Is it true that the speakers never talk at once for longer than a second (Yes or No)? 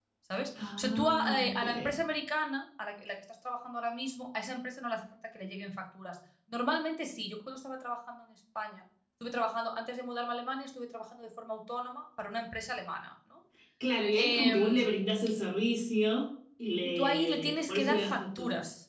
No